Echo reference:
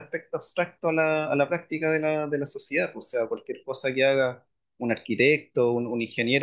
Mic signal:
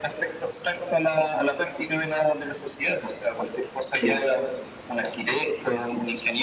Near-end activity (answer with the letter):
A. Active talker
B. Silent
A